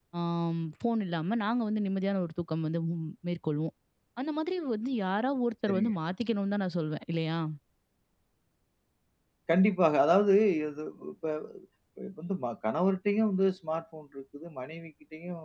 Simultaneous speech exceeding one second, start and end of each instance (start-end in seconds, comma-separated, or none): none